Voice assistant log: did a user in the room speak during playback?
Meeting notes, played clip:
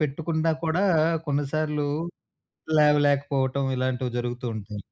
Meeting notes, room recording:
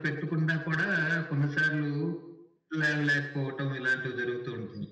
No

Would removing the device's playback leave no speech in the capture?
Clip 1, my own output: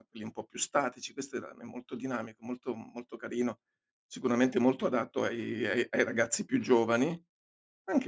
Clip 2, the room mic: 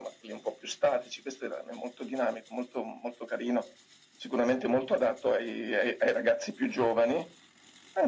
Yes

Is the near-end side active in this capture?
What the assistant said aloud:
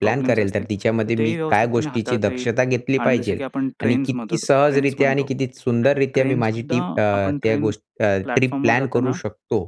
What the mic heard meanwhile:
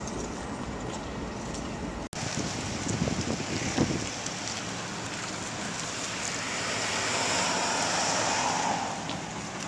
No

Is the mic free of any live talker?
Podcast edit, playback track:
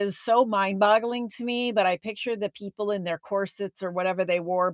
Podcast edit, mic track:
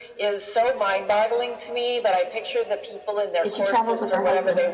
No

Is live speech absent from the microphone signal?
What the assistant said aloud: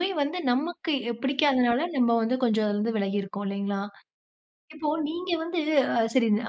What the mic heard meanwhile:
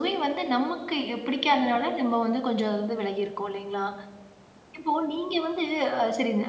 Yes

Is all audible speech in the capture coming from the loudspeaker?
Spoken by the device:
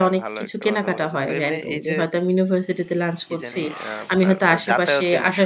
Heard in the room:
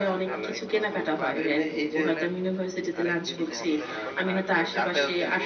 No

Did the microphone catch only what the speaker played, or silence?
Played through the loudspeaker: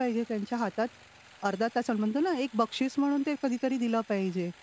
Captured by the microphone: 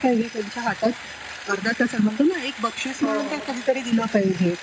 No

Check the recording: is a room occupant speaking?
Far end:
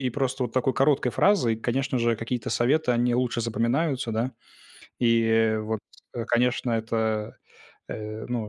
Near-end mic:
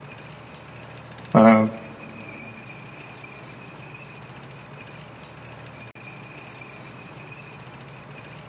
Yes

